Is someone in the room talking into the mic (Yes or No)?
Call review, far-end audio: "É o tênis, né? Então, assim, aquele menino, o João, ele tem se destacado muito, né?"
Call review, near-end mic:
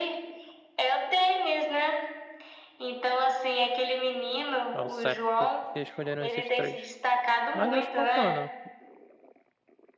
Yes